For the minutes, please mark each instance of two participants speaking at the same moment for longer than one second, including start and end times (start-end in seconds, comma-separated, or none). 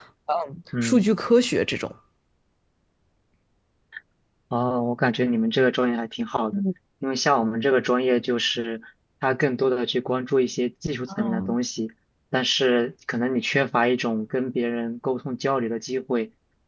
none